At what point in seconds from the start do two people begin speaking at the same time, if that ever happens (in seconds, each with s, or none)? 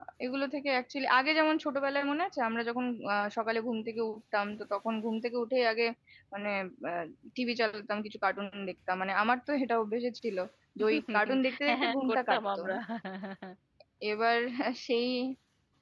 10.9 s